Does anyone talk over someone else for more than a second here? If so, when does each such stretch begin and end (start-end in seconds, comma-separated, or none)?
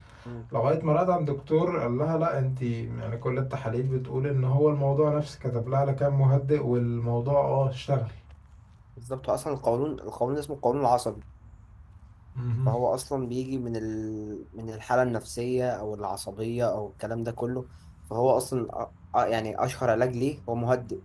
none